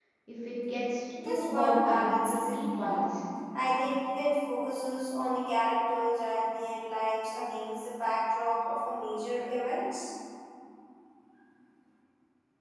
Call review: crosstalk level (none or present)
present